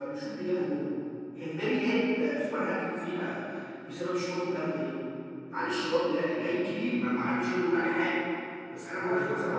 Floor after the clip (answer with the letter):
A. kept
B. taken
A